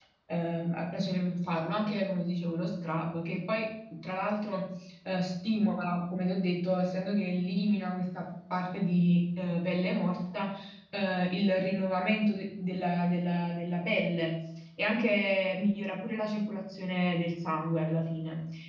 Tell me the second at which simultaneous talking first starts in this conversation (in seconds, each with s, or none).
none